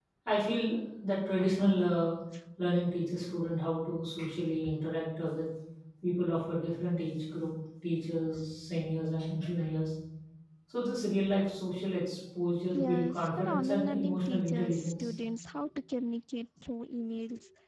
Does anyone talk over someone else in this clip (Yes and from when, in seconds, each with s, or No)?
Yes, from 12.7 s